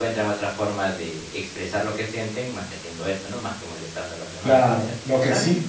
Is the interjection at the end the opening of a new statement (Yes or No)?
Yes